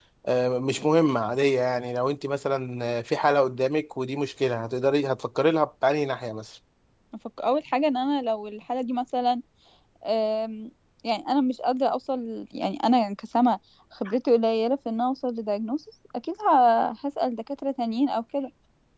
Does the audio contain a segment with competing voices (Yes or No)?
No